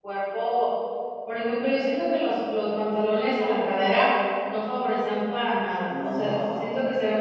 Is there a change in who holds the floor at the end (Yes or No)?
No